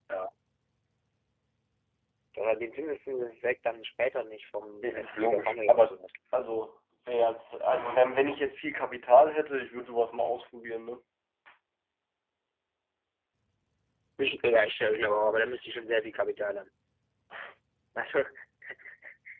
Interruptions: present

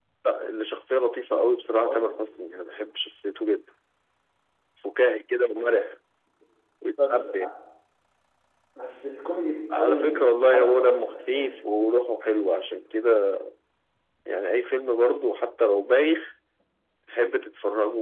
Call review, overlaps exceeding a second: present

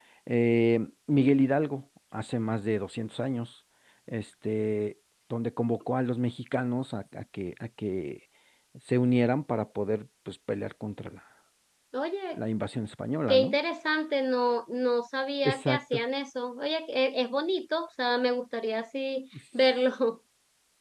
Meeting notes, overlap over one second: none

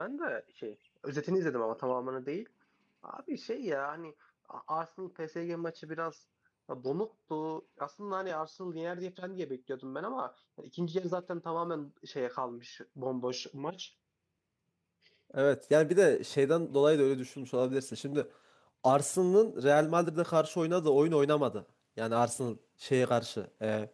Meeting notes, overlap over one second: none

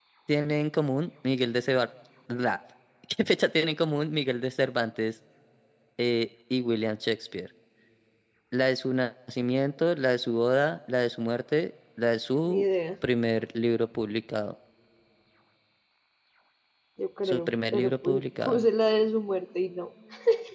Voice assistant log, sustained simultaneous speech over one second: present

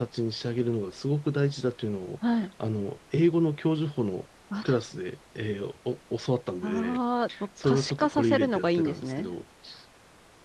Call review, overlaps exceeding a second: present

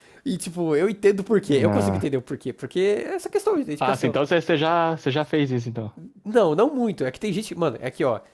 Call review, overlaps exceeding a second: none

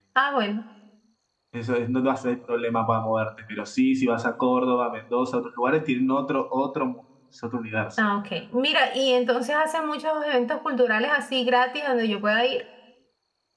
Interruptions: none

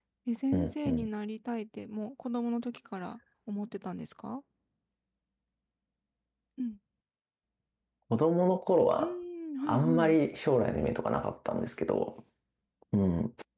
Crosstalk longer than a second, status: none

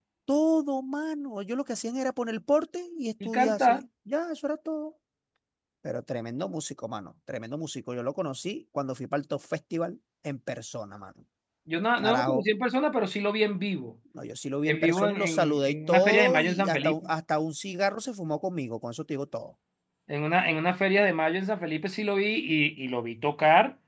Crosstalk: present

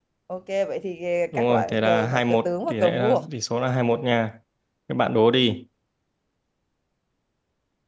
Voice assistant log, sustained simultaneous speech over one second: present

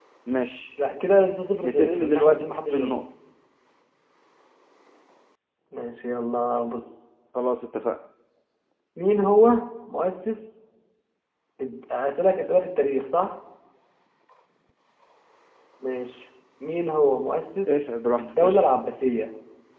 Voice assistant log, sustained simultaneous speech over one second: present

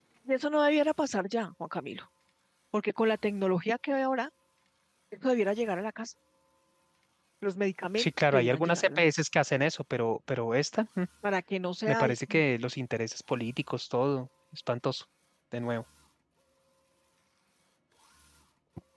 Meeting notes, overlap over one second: present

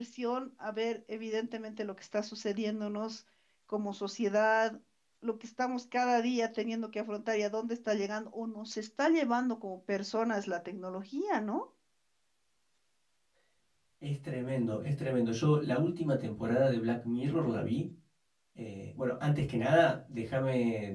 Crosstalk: none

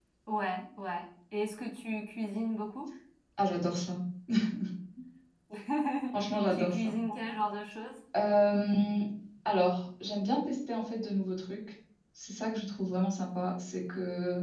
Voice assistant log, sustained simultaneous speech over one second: none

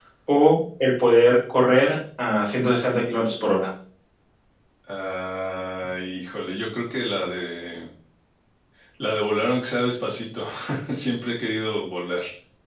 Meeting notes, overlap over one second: none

